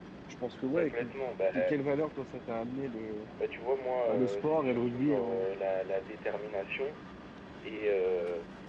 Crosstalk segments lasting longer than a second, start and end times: 4.1-5.5

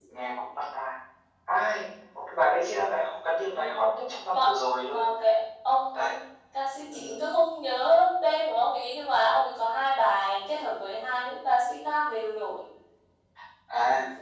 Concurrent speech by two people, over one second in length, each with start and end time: none

